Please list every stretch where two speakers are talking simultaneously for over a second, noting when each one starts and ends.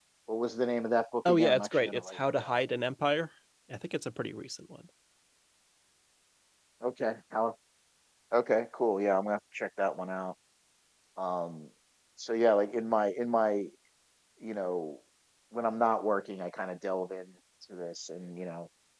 1.2-2.6

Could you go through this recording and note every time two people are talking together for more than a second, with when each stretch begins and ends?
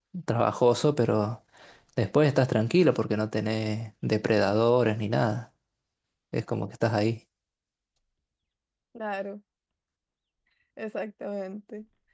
none

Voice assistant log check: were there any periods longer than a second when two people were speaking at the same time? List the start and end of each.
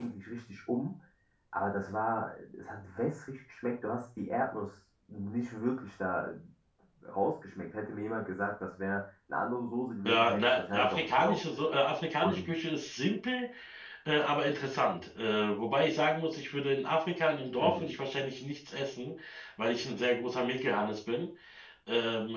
10.1-11.4

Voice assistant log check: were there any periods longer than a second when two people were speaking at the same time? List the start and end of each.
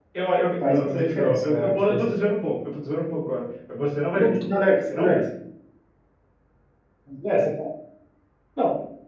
0.6-2.3

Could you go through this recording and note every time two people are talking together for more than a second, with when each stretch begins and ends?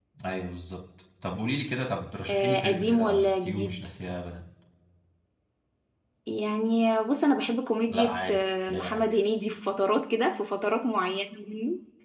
2.3-3.9, 7.9-9.1

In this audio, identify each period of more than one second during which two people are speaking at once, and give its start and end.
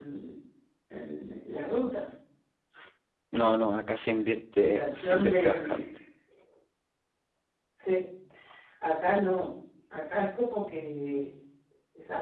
4.6-5.8

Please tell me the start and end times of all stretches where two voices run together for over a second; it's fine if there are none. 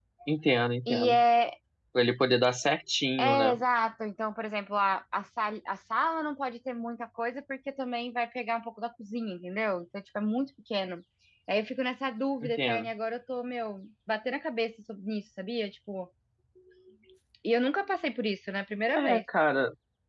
none

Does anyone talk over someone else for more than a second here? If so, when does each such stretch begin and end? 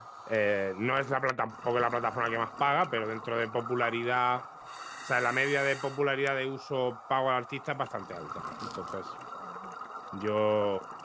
none

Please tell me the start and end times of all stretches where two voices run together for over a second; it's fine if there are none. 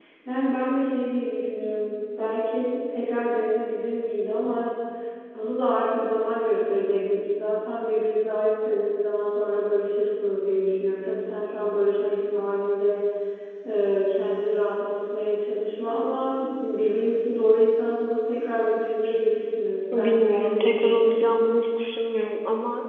19.9-21.2

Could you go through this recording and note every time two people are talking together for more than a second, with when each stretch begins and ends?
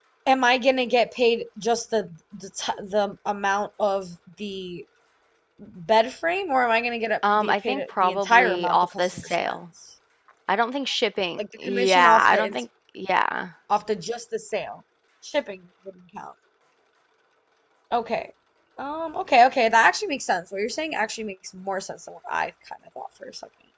7.4-9.6, 11.4-12.6

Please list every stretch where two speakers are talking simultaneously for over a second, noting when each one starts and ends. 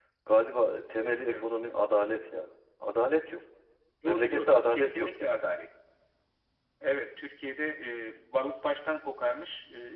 4.1-5.4

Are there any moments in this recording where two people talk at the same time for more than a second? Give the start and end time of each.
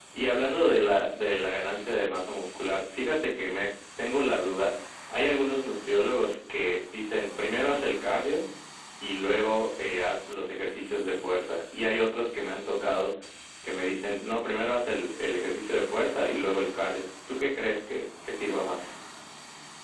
none

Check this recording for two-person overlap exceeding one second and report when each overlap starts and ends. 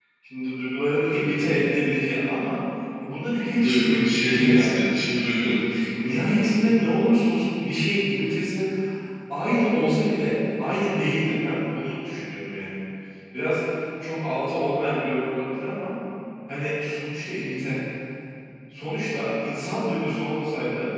3.6-5.5

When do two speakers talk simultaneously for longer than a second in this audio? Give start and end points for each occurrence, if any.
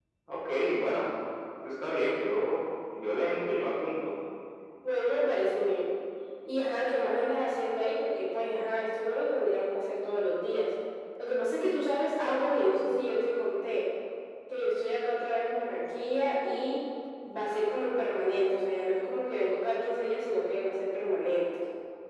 none

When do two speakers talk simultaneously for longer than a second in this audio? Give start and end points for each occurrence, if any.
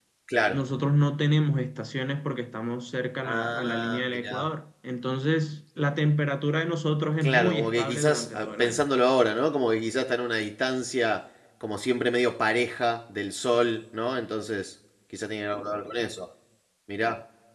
3.2-4.5, 7.2-8.8

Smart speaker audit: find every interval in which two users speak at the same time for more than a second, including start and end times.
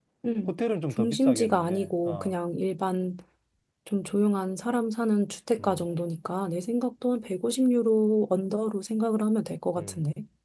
0.9-2.4

